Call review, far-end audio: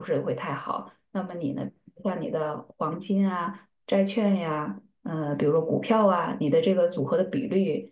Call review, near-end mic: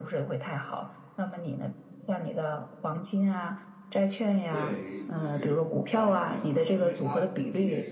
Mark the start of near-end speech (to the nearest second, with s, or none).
4 s